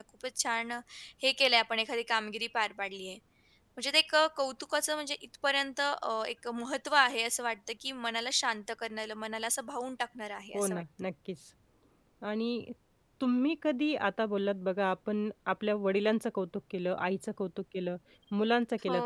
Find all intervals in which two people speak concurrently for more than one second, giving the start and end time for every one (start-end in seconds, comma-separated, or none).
none